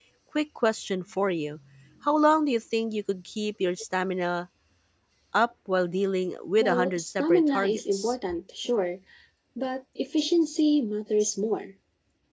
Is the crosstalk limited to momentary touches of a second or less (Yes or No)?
No